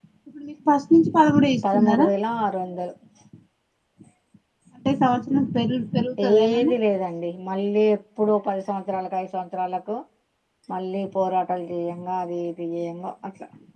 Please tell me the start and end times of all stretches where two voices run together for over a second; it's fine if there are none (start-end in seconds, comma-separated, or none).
none